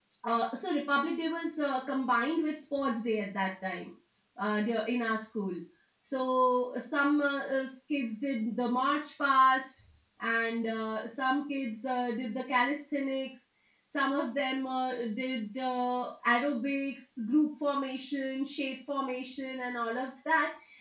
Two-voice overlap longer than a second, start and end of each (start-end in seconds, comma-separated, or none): none